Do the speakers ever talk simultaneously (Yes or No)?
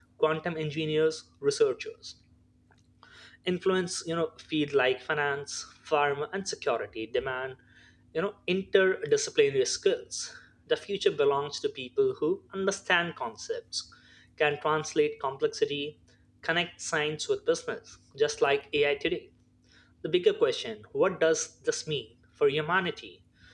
No